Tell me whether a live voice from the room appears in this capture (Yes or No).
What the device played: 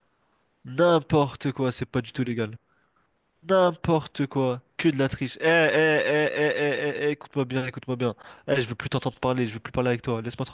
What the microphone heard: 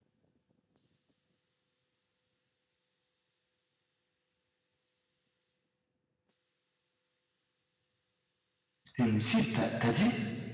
Yes